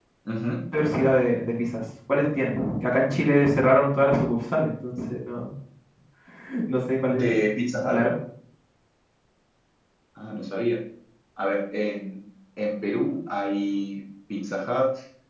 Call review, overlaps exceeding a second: none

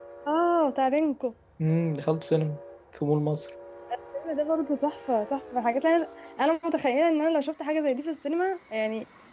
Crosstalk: none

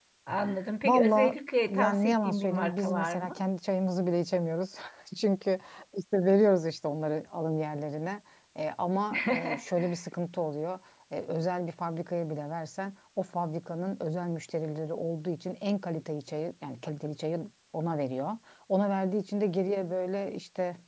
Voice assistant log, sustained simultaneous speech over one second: present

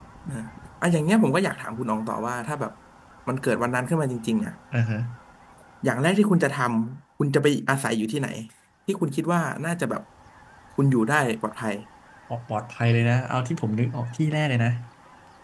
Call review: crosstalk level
none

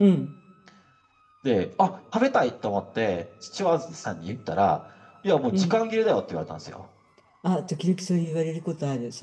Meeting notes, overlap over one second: none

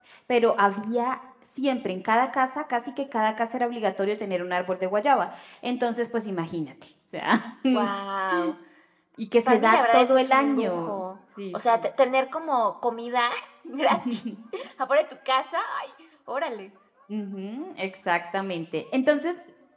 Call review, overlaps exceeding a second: present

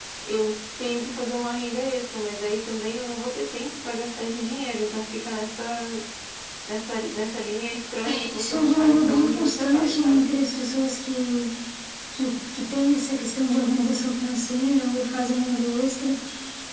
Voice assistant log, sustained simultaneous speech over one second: present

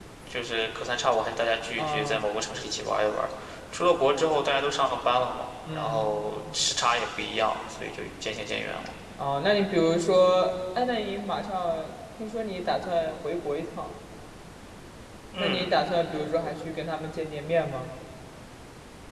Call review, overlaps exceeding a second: none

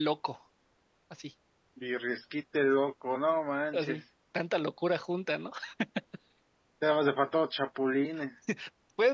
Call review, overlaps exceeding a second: none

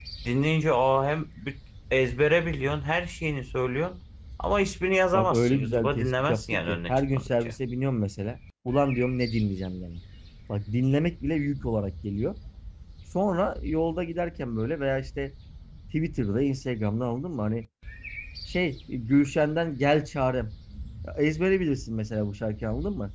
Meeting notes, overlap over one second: present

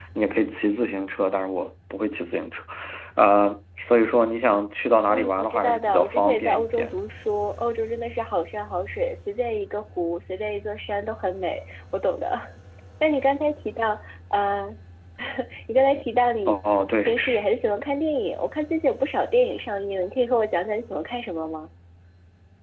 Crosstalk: present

